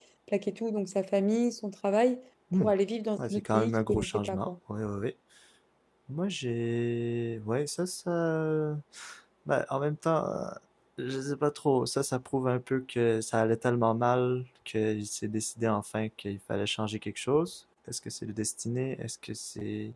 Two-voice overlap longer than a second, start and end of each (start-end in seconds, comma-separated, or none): 3.2-4.5